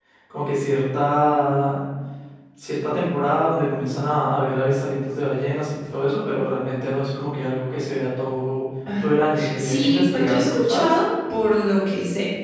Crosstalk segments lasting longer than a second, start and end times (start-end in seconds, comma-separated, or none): 9.6-10.9